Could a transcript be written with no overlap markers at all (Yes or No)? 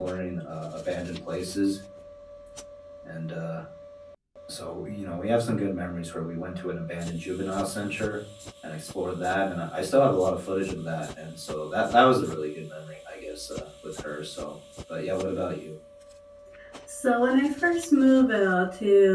Yes